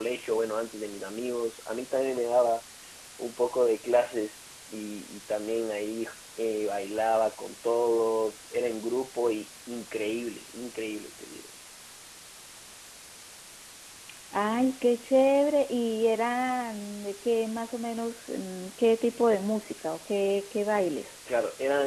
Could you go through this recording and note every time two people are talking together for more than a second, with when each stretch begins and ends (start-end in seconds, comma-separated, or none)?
none